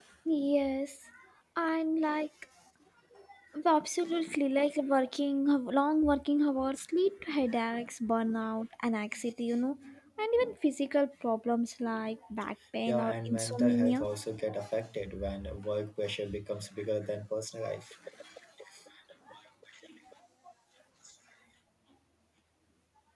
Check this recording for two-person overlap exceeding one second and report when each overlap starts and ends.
12.9-14.1

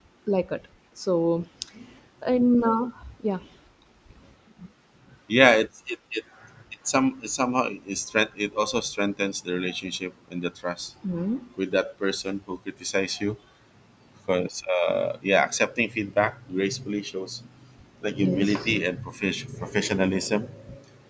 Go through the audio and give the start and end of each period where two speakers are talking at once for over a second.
none

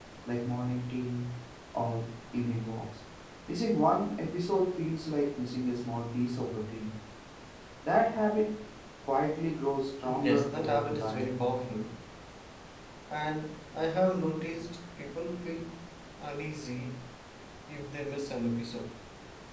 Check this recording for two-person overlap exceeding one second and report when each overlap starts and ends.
10.1-11.4

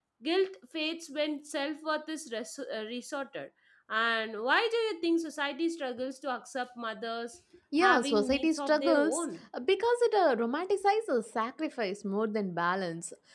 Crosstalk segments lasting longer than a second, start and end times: 7.8-9.2

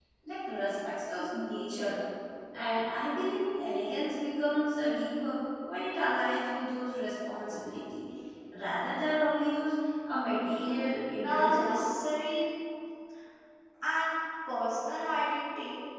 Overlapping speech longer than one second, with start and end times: 10.6-11.9

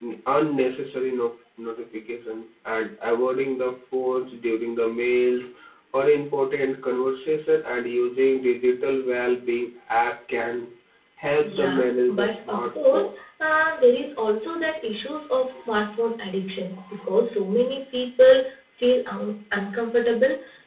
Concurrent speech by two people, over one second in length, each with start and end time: 11.5-13.1

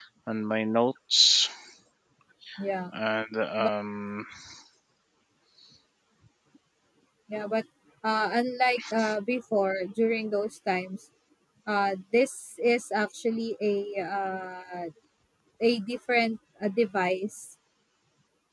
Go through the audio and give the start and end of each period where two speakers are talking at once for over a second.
none

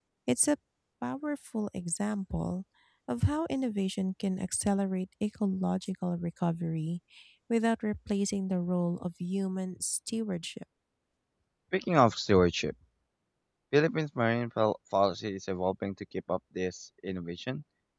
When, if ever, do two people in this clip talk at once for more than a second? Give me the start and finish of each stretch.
none

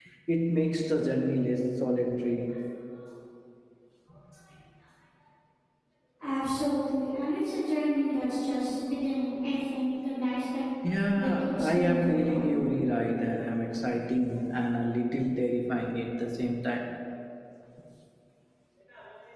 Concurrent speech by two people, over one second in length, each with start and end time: 11.2-12.6

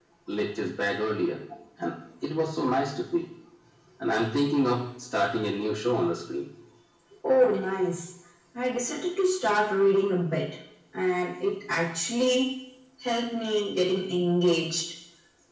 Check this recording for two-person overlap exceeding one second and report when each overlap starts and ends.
none

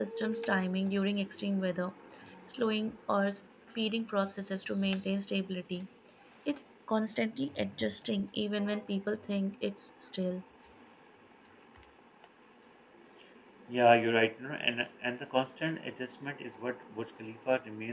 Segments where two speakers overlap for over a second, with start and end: none

